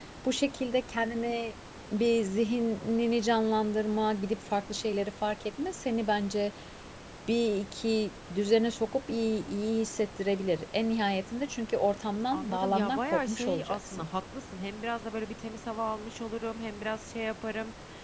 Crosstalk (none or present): present